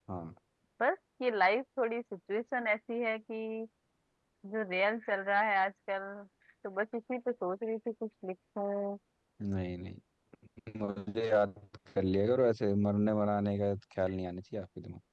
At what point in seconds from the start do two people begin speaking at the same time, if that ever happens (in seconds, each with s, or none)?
none